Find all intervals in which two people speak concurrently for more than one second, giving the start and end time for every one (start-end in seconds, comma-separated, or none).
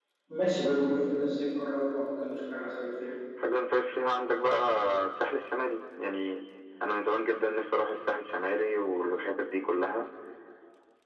none